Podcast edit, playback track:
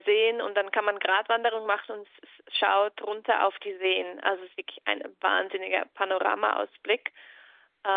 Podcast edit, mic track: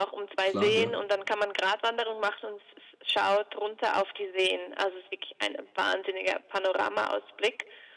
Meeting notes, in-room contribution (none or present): present